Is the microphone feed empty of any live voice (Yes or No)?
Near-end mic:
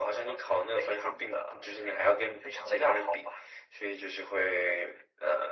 Yes